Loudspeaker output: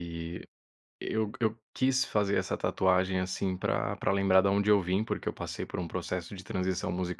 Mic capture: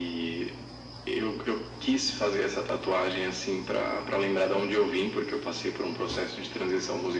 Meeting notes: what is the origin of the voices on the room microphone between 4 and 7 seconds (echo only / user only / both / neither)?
echo only